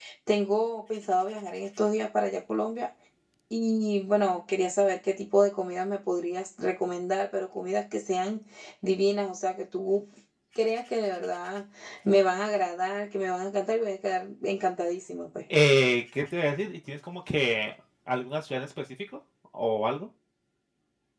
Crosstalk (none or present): none